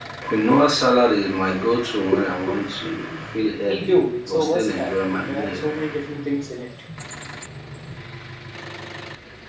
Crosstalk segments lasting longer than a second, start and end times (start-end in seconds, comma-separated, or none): 3.7-5.7